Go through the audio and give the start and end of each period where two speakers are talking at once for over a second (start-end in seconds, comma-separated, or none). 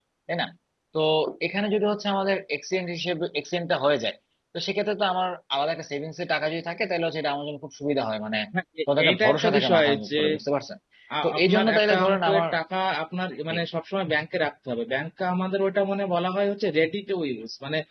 9.0-10.2, 11.2-12.4